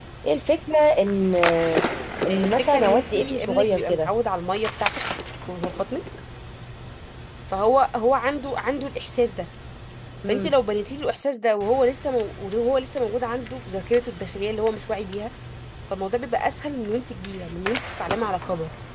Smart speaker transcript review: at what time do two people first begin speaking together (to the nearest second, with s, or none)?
2 s